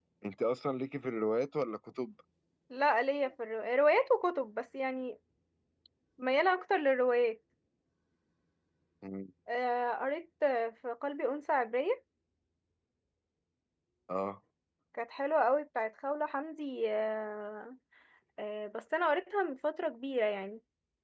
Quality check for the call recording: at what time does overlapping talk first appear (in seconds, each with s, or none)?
none